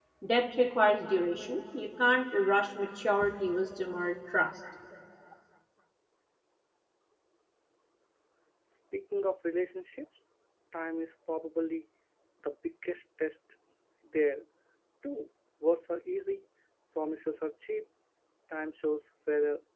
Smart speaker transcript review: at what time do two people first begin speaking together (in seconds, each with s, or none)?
none